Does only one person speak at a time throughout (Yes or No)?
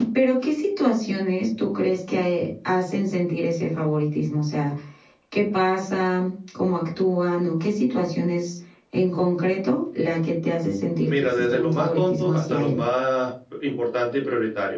No